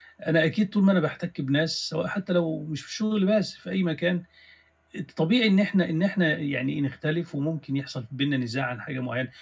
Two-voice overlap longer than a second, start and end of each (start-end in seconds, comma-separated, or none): none